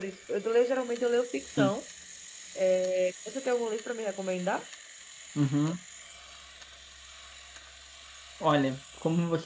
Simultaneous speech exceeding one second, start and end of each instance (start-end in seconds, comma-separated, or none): none